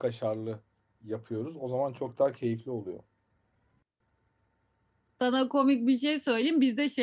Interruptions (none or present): none